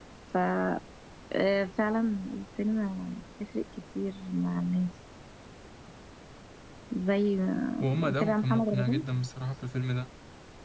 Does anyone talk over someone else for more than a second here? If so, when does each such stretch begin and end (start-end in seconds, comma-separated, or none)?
7.8-9.0